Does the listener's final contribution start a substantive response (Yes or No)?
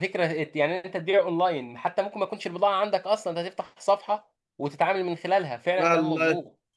Yes